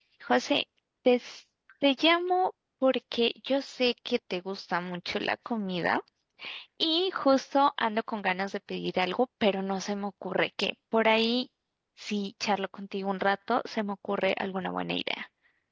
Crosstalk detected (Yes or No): No